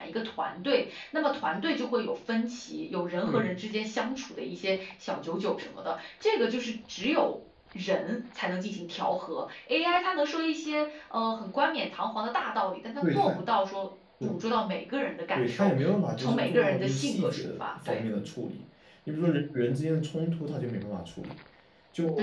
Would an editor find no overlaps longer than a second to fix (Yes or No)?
No